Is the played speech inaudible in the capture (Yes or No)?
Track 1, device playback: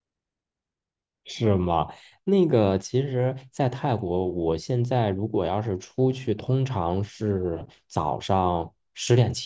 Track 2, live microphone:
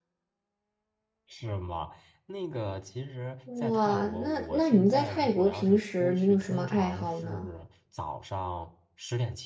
No